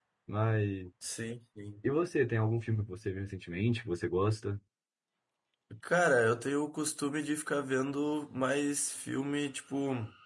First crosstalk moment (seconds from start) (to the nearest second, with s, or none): none